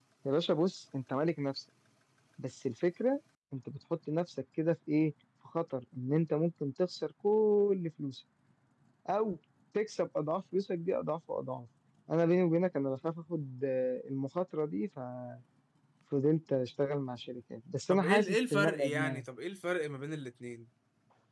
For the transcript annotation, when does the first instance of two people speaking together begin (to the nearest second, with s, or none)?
18 s